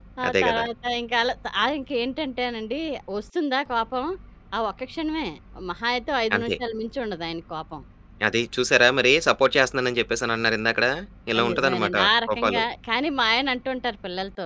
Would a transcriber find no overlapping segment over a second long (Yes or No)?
No